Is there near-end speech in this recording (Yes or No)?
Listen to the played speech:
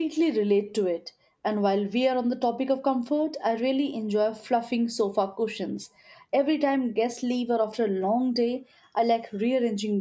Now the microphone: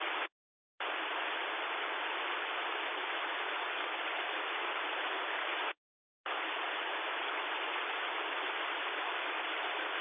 No